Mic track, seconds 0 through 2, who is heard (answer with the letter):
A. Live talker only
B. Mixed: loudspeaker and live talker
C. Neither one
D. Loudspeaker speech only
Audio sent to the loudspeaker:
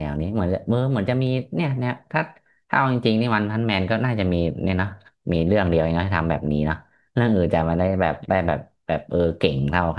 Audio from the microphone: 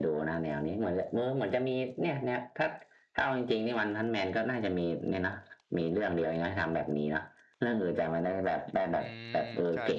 D